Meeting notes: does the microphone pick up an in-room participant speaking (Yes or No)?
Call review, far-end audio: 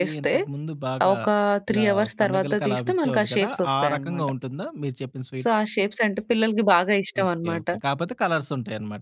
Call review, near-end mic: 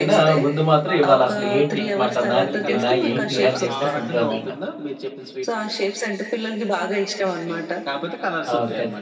Yes